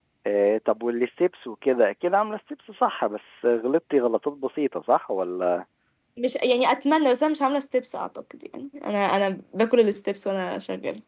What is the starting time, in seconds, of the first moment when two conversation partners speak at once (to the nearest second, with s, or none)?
none